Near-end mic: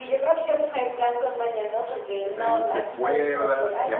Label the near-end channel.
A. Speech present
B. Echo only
A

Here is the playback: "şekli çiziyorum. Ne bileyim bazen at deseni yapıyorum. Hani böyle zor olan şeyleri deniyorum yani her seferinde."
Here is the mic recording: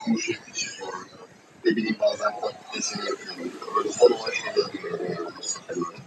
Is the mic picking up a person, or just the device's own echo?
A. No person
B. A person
A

